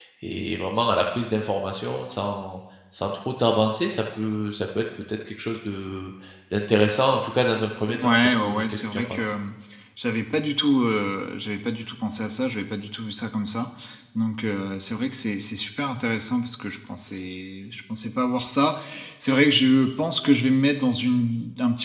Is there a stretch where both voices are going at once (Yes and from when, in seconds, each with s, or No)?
Yes, from 7.9 s